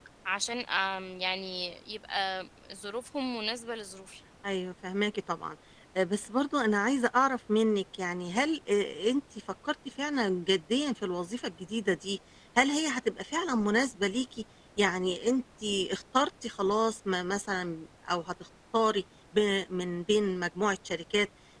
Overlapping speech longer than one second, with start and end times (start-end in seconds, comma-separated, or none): none